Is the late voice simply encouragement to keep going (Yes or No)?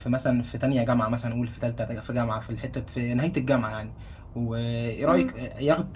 Yes